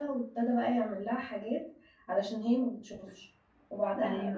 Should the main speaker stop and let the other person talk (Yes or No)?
No